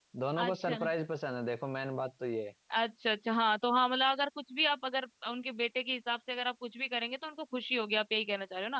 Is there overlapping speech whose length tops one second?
No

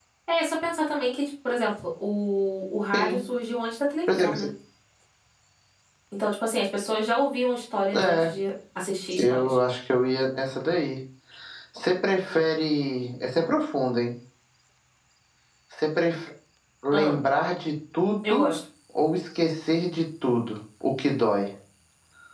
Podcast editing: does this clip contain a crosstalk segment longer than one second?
No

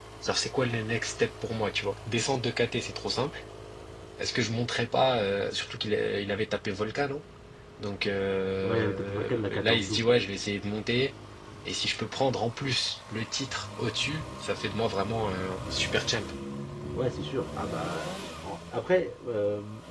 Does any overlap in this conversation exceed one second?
Yes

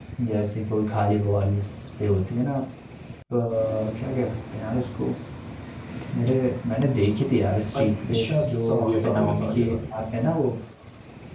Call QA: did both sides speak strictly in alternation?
No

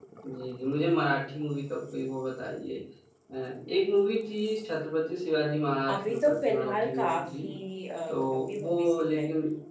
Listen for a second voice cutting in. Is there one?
Yes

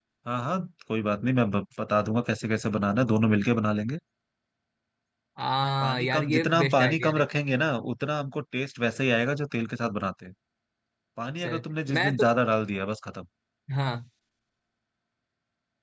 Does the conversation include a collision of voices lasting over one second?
Yes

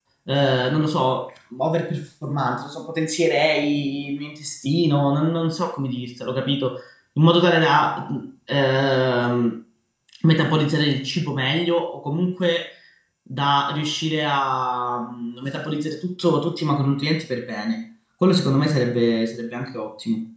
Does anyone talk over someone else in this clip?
No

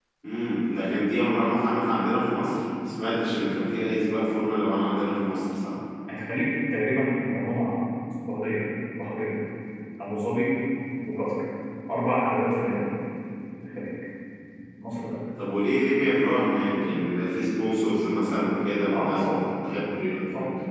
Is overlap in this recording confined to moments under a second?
Yes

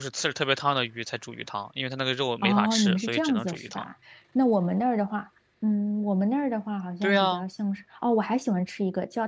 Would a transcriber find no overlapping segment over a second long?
No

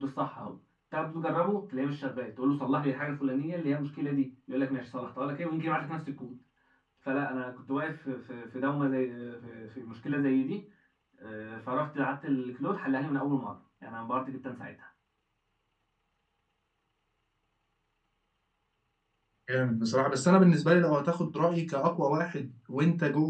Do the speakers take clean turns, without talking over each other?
Yes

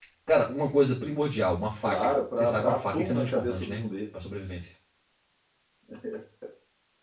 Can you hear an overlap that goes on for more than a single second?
Yes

